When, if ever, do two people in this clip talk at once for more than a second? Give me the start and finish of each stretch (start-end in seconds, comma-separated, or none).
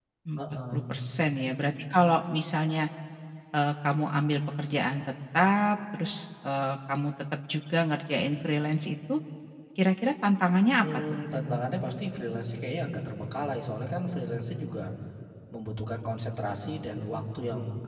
none